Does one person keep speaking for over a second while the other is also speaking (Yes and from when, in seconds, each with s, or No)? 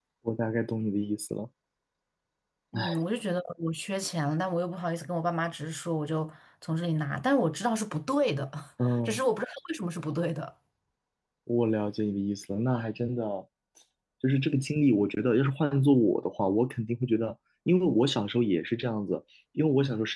No